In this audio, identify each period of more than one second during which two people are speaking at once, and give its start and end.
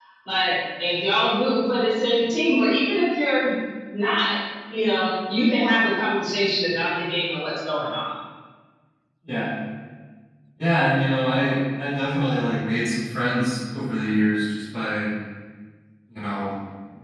none

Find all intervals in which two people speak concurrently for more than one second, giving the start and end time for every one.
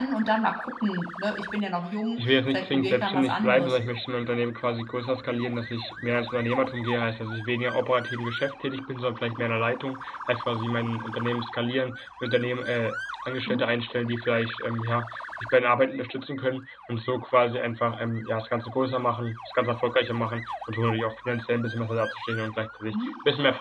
2.2-3.7

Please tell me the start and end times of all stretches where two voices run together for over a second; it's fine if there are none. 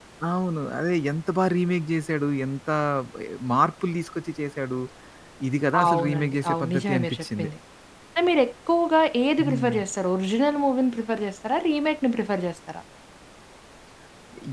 5.9-7.5

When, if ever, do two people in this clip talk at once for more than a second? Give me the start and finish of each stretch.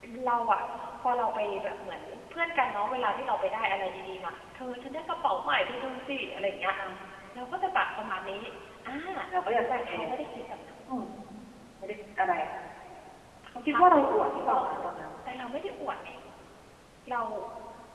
13.7-14.9

